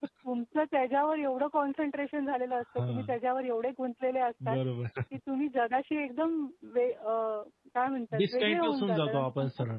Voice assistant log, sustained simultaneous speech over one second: present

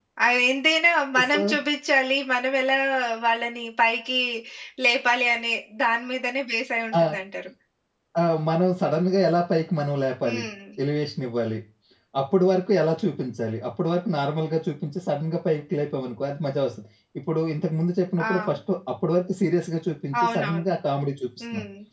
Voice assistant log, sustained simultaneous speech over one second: none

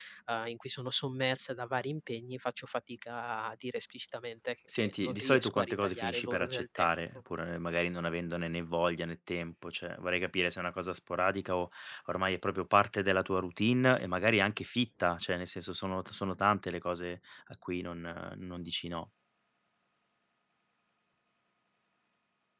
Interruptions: present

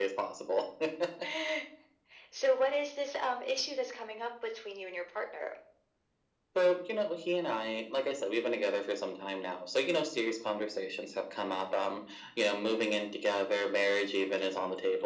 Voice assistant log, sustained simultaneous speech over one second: none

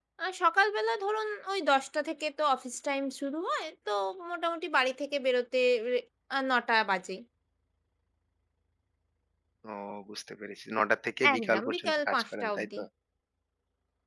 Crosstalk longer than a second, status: present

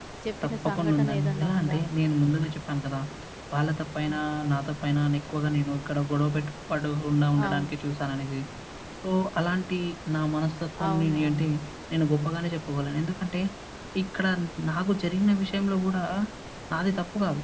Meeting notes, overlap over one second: present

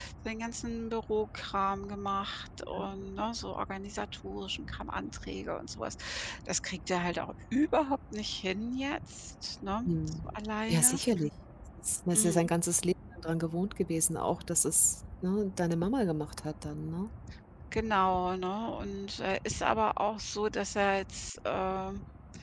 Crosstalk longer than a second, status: none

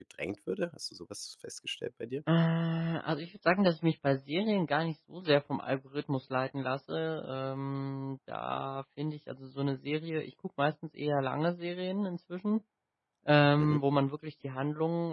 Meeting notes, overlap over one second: none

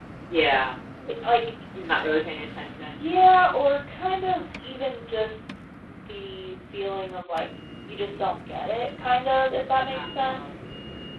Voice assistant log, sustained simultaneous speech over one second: none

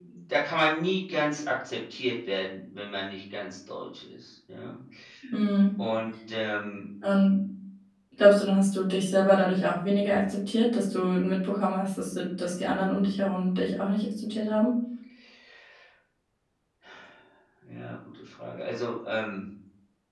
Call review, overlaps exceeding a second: none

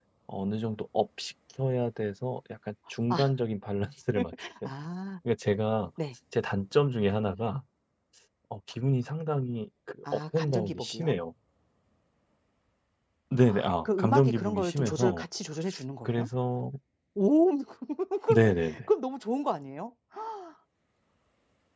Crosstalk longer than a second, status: present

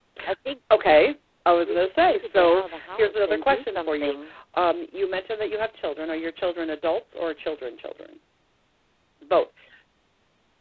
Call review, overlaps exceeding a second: present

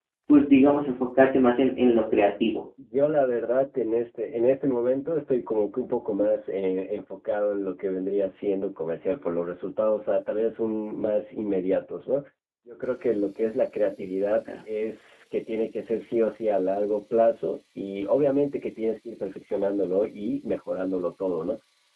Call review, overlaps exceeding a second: none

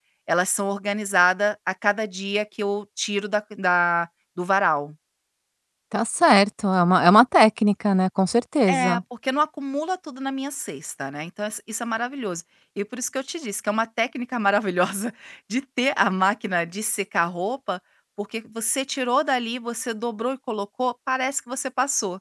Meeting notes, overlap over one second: none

